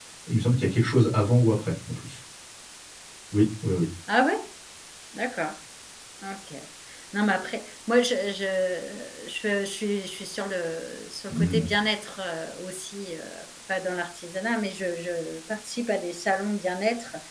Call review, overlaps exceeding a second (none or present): none